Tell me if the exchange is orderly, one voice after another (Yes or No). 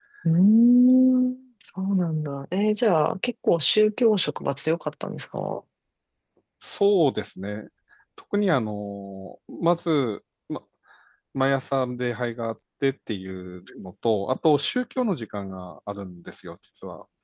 Yes